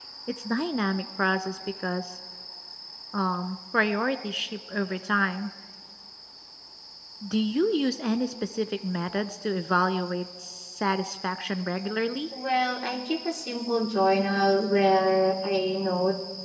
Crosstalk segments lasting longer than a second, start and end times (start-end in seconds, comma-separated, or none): none